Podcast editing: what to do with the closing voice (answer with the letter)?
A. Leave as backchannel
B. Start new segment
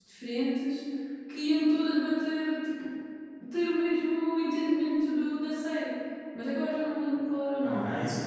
B